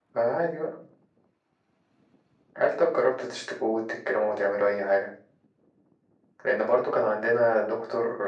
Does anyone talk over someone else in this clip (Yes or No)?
No